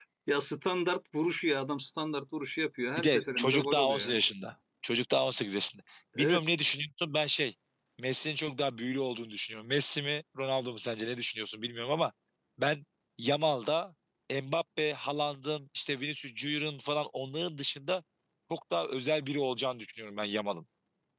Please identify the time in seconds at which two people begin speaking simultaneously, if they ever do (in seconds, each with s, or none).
3.0 s